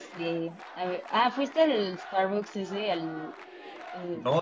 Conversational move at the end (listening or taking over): taking over